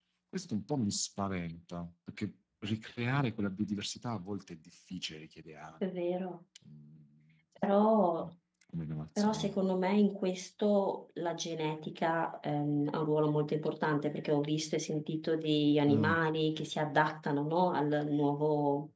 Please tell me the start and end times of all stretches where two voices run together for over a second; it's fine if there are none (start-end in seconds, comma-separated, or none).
none